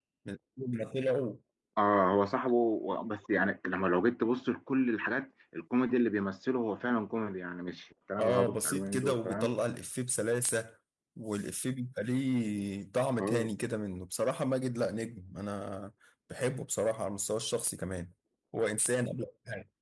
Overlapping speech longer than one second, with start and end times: 8.2-9.5

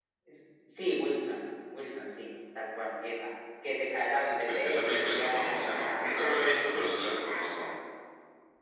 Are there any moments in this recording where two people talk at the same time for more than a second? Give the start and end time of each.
4.4-7.2

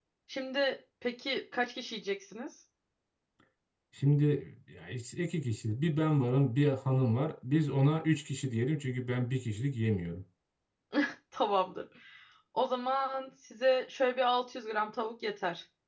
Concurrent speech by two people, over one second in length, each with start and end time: none

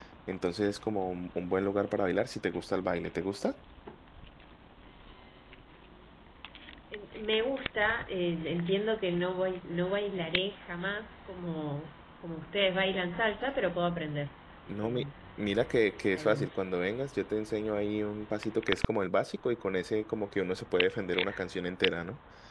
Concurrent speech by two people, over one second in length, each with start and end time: none

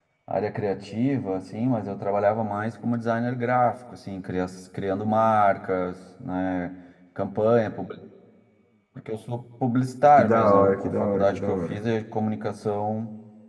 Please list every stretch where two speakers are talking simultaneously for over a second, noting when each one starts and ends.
10.2-11.8

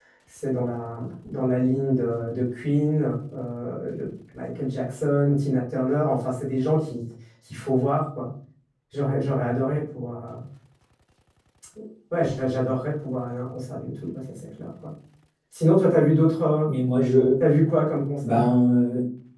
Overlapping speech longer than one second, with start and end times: none

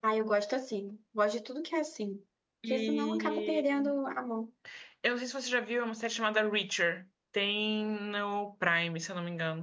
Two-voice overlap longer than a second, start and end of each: 2.7-3.9

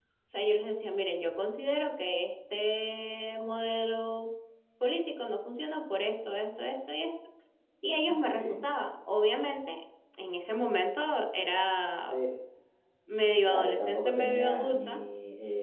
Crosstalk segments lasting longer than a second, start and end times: 13.5-15.0

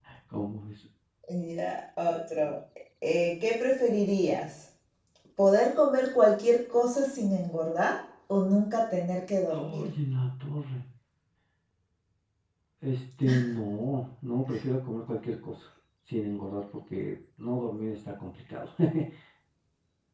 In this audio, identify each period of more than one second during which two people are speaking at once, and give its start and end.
none

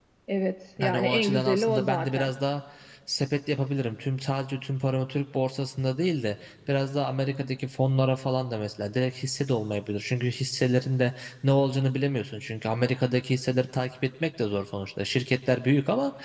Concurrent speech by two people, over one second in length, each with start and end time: 0.8-2.3

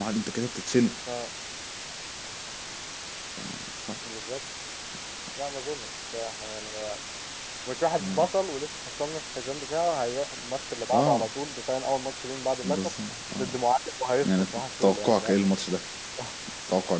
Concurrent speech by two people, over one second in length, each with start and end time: 14.2-15.5

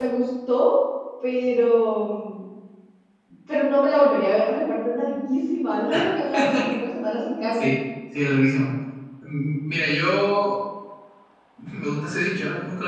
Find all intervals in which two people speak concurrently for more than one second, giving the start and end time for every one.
none

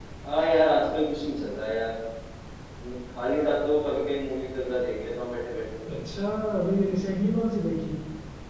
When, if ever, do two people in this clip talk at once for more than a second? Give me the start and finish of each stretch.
none

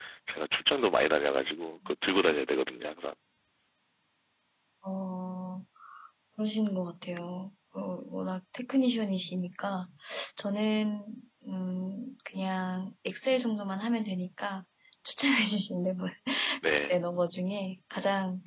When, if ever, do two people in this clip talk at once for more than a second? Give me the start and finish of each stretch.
none

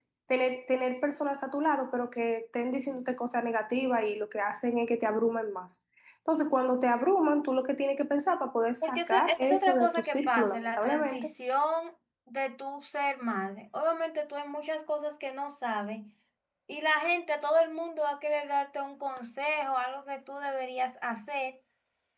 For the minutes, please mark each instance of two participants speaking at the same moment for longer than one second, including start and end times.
8.8-11.3

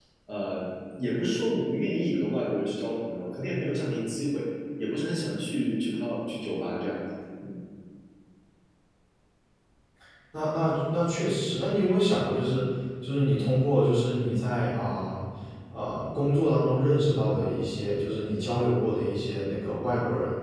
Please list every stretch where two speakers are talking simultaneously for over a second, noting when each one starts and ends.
none

